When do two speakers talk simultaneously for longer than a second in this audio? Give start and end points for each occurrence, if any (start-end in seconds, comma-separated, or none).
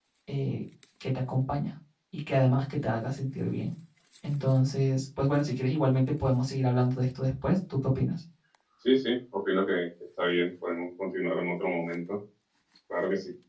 none